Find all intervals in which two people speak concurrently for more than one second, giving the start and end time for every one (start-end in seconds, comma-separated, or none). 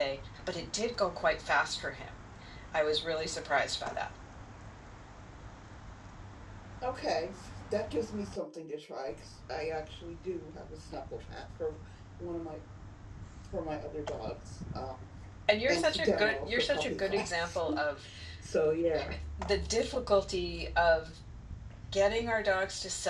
15.7-17.6